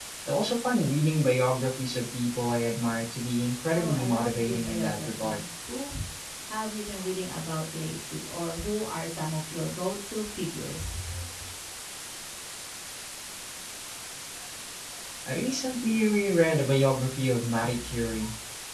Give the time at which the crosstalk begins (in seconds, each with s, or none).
3.7 s